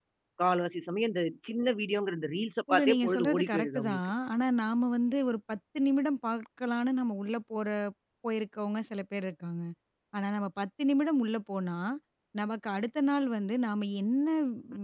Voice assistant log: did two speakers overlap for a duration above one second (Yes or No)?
Yes